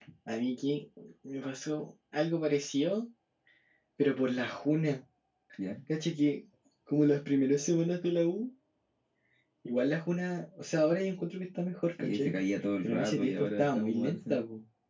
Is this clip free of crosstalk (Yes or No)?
No